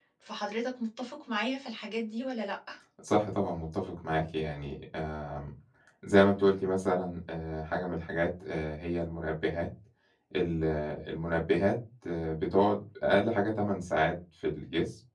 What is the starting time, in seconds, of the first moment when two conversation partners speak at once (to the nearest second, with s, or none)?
none